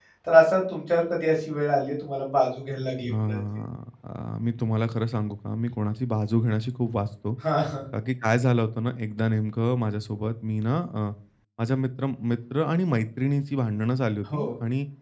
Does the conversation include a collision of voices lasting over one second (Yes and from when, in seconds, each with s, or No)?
No